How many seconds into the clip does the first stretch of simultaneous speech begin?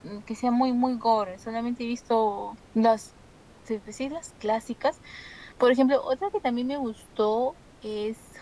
none

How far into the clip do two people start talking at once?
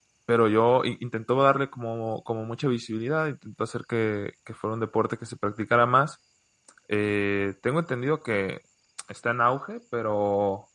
none

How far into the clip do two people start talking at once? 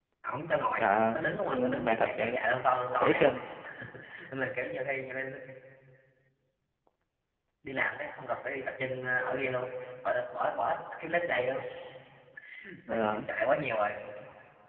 0.8 s

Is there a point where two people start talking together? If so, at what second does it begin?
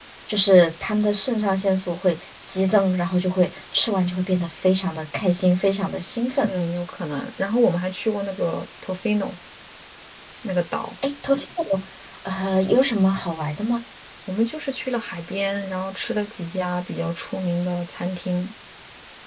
none

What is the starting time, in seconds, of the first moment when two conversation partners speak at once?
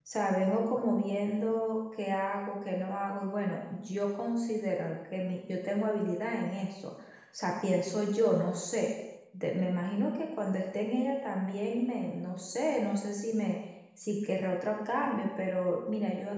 none

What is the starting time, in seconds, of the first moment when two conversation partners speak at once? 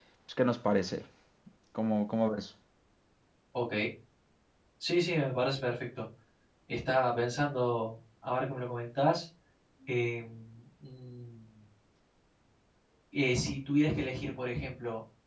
none

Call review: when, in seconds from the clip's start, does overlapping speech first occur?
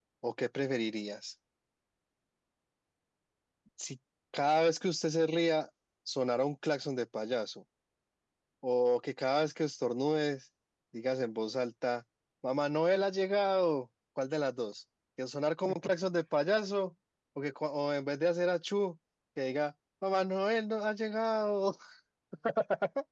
none

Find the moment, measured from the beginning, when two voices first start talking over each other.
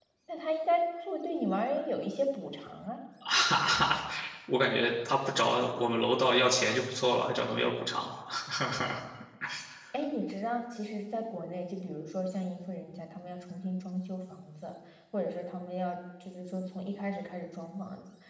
none

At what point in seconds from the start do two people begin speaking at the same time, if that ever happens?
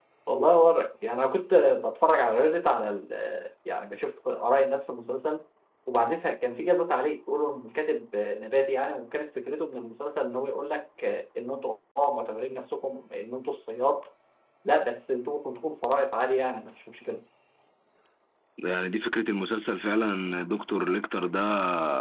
none

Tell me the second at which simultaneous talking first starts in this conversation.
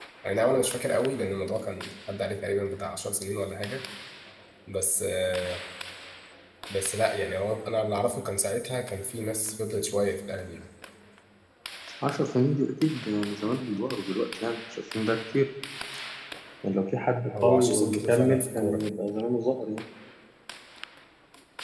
17.4 s

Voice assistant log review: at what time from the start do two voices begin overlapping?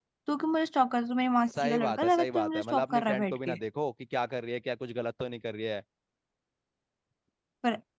1.5 s

